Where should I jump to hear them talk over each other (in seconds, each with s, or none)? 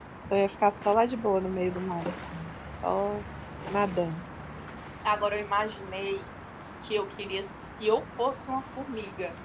none